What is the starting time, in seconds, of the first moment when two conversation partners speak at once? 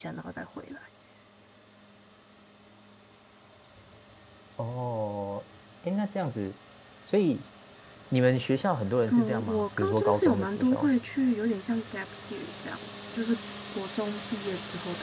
9 s

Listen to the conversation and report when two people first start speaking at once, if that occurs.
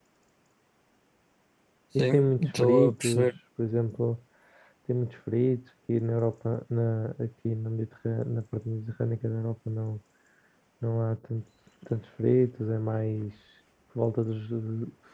2 s

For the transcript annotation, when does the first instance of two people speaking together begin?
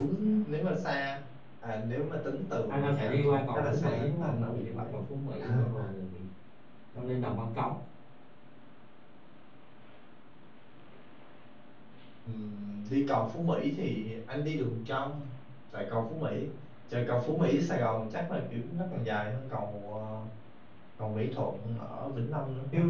3 s

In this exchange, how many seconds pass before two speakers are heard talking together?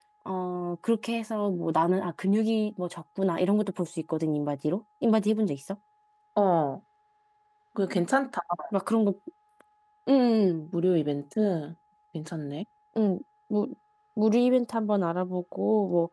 none

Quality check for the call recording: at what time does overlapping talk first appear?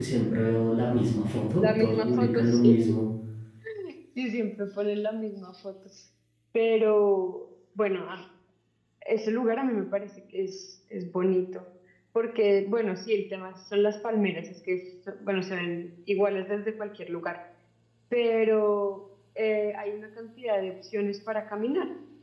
2 s

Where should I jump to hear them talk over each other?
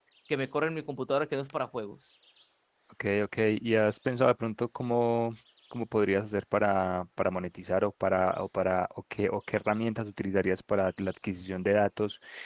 none

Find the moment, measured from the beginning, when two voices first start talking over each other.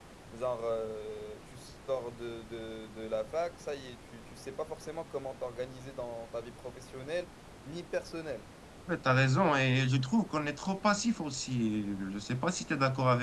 none

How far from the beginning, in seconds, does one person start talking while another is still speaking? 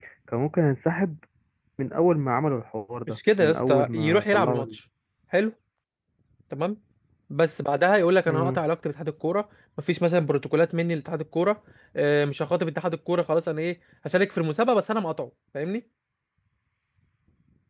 3 s

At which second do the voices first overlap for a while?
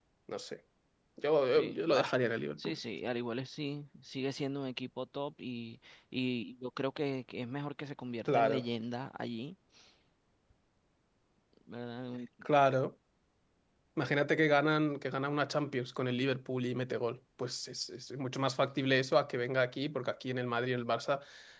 2 s

